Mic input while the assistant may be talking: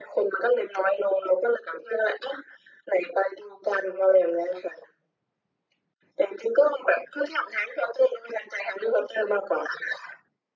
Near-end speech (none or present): none